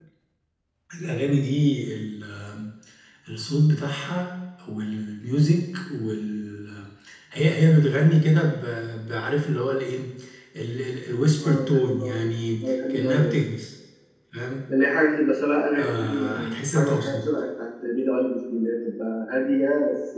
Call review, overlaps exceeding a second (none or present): present